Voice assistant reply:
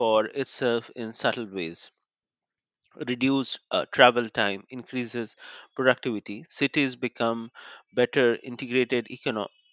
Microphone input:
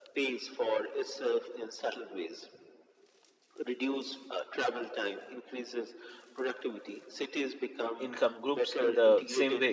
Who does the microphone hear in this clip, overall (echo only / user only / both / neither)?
both